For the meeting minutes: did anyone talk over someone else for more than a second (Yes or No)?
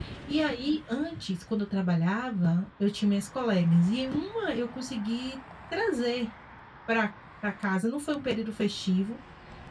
No